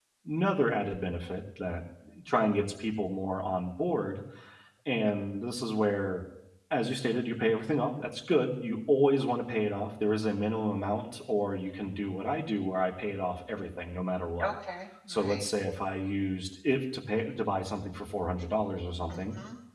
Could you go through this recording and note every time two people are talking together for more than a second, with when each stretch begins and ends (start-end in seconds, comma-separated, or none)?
none